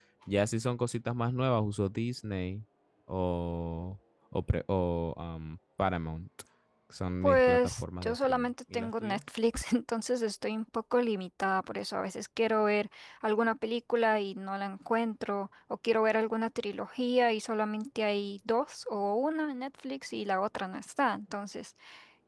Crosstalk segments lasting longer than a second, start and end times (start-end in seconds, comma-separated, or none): 7.2-9.2